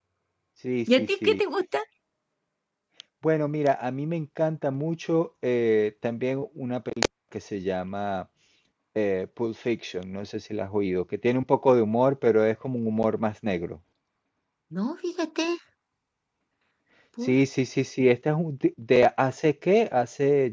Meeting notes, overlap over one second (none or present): none